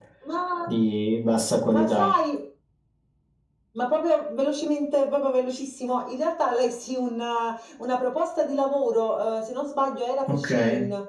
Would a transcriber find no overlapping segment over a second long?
Yes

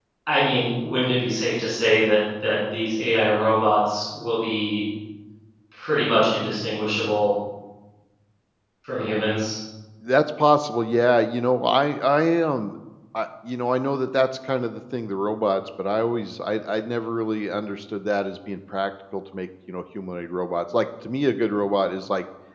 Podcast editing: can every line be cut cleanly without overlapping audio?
Yes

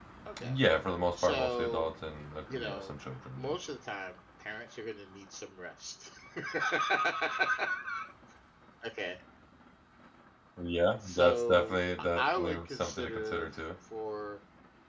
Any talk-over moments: Yes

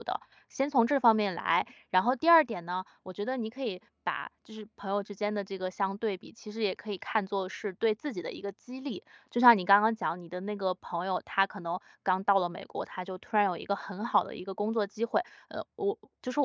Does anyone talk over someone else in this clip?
No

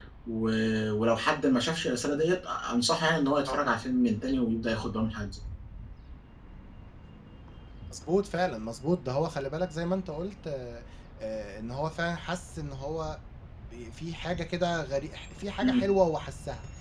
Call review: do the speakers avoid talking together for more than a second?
Yes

